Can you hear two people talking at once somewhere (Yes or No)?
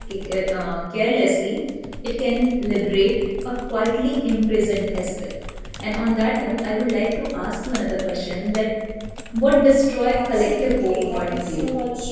Yes